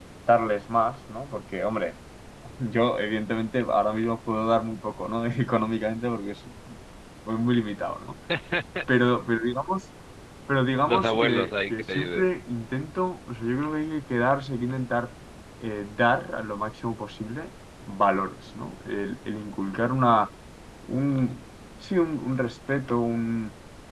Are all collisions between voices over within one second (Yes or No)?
No